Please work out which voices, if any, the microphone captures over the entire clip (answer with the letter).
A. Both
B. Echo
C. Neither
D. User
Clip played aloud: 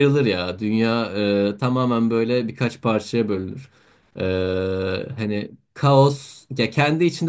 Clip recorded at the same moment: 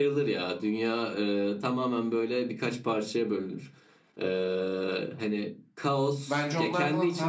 A